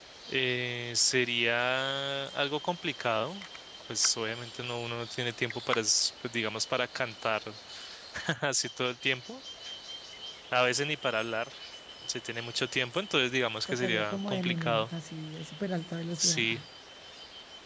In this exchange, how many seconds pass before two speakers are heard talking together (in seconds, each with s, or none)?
13.7 s